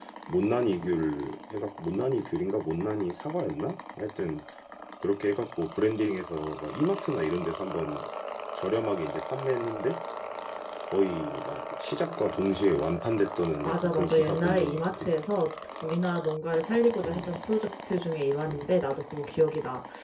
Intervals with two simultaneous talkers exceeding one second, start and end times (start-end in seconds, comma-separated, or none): 13.6-15.1